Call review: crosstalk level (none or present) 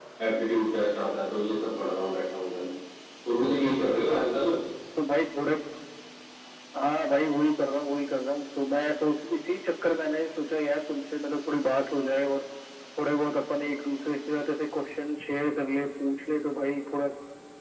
none